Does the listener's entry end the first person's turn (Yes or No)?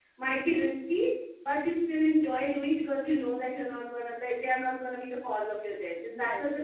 Yes